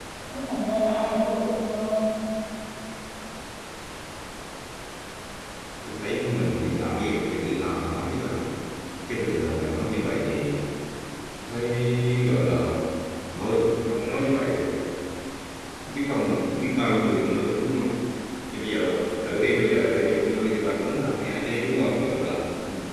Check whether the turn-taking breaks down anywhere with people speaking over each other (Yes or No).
No